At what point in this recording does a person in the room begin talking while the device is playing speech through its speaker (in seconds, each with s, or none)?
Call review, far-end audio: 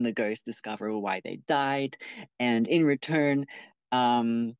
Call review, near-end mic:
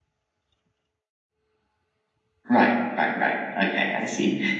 2.5 s